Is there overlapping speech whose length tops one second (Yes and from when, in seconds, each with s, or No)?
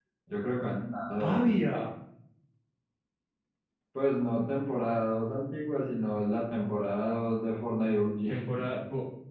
No